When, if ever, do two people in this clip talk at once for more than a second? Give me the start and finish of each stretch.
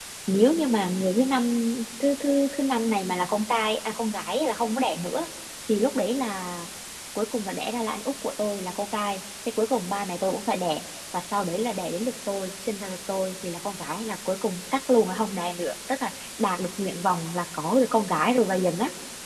none

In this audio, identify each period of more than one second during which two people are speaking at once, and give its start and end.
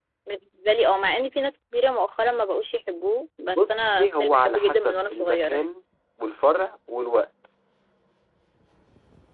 3.5-5.6

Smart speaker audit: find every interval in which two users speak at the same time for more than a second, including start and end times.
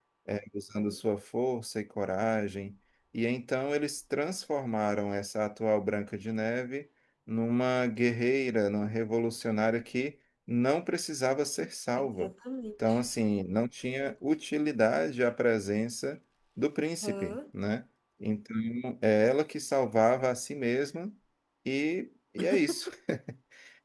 none

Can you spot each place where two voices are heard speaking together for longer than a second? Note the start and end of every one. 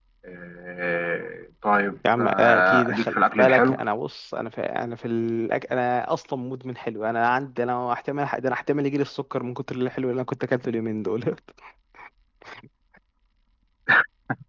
2.2-3.8

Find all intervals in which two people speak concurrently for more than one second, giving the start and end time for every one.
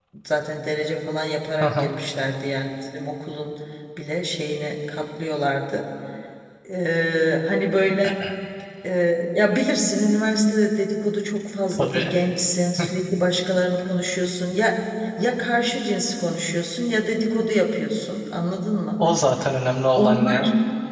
none

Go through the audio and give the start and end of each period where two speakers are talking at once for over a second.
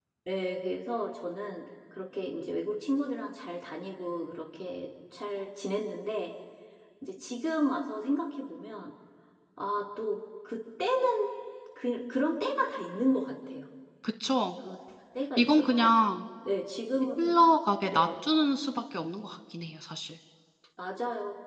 none

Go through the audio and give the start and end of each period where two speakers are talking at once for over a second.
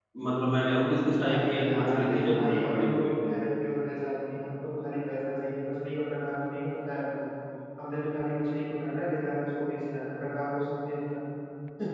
1.3-3.1

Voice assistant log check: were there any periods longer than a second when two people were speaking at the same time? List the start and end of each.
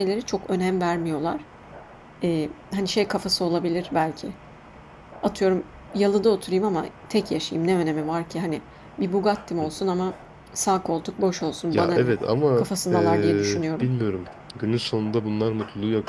12.6-13.9

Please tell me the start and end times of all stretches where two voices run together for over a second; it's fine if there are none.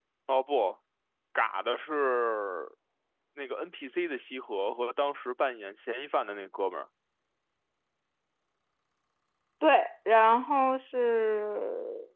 none

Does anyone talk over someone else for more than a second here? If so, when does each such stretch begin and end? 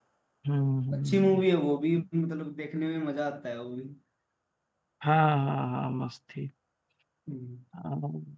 none

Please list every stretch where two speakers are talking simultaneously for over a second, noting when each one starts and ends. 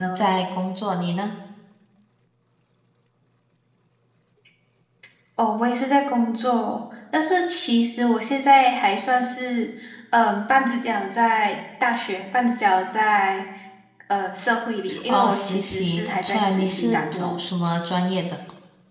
15.1-17.4

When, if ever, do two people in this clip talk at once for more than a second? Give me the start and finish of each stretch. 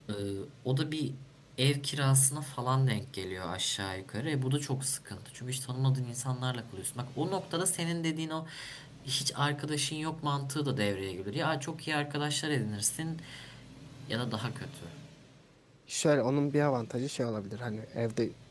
none

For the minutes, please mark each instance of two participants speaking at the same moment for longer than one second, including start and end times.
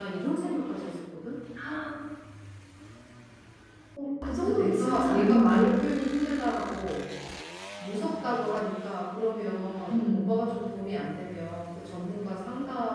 4.4-5.8

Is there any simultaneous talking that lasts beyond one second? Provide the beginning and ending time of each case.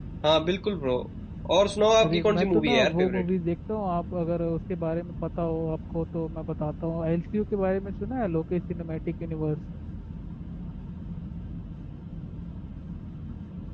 2.0-3.2

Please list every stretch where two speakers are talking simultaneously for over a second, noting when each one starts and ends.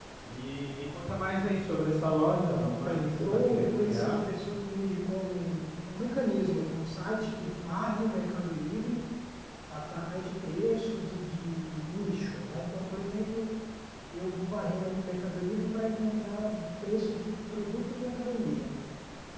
2.6-4.2

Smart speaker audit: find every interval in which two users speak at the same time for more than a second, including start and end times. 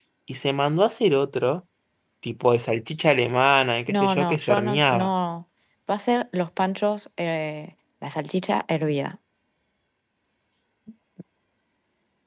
3.9-5.1

